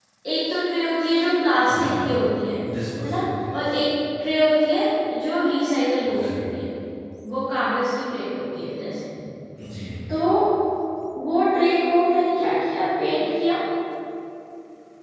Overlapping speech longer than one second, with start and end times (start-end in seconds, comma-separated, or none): none